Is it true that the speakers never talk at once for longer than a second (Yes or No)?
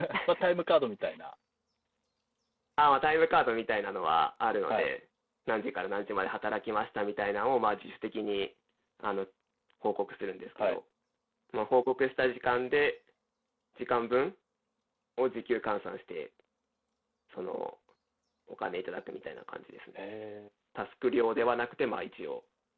Yes